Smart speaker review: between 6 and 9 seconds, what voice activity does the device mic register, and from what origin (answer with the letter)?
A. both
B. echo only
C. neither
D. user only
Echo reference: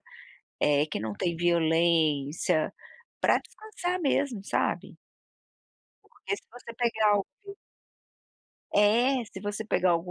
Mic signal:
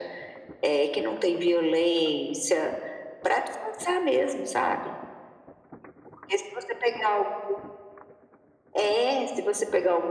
B